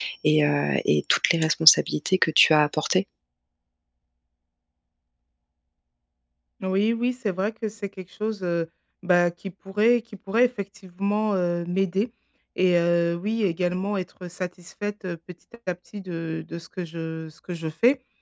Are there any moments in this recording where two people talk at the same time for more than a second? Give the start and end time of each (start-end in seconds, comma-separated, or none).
none